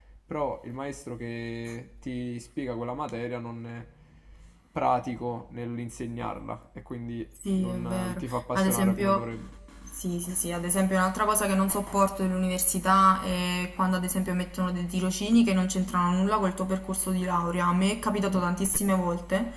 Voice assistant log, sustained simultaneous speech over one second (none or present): present